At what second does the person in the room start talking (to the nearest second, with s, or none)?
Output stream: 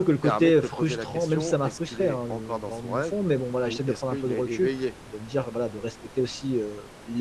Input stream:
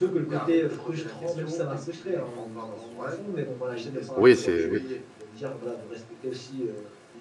4 s